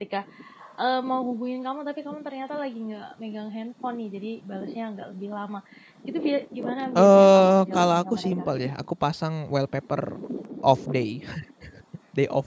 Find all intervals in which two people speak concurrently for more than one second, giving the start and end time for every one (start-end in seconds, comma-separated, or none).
7.0-8.5